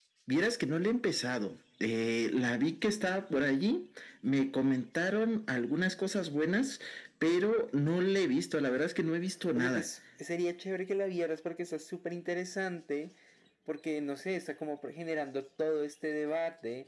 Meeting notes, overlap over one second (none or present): none